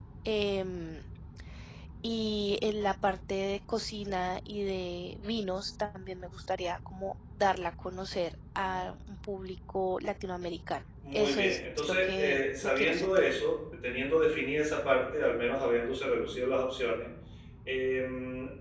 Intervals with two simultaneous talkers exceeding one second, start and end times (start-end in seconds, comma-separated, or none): 11.1-13.3